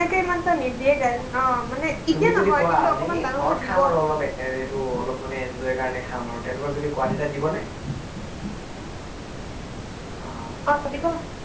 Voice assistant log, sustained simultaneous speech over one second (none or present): present